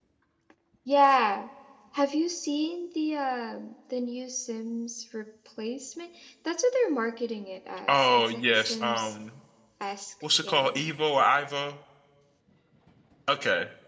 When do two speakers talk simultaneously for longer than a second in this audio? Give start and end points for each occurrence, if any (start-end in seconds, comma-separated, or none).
7.9-9.1